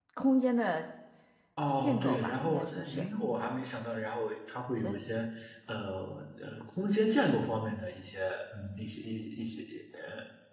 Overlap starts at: 1.8 s

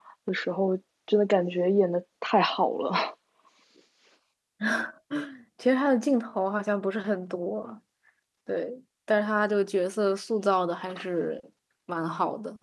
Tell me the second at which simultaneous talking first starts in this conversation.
none

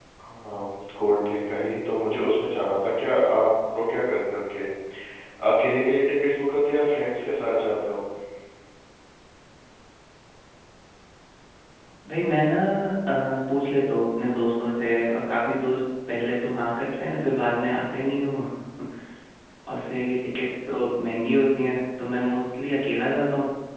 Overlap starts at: none

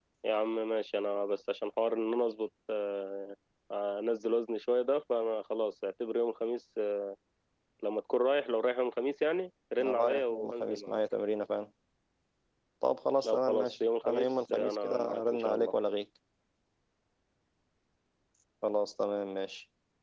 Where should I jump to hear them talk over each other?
9.8 s

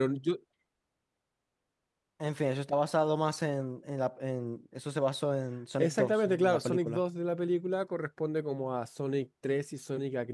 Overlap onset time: 5.8 s

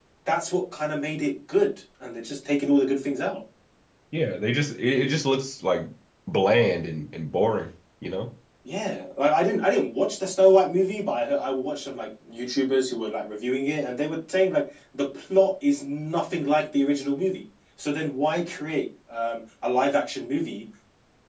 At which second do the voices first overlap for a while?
none

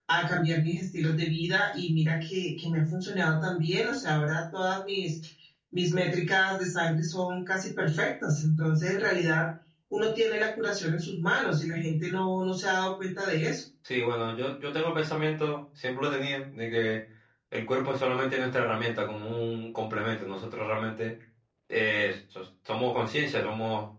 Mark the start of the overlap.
none

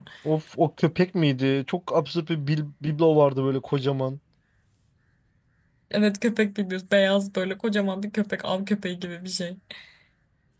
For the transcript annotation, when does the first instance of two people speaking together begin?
none

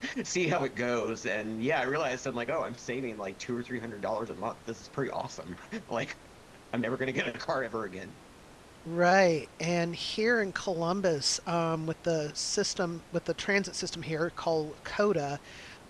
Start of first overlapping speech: none

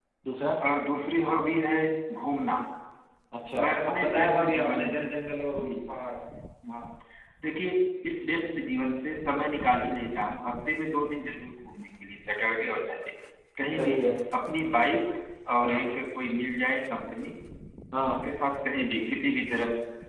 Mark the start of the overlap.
3.6 s

